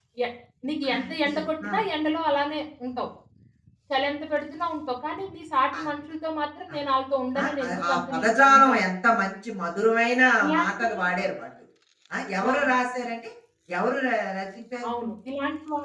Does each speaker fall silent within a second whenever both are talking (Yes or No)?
No